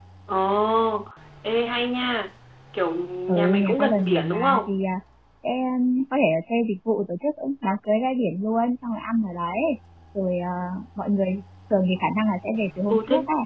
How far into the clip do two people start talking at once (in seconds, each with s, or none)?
3.3 s